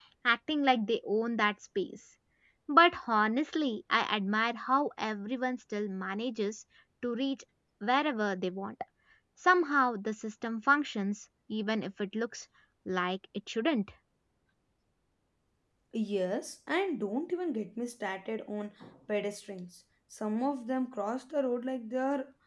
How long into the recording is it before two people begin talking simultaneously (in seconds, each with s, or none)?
none